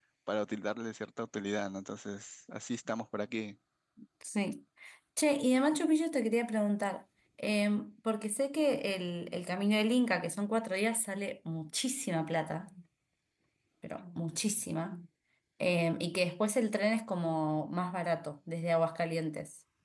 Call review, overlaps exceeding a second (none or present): none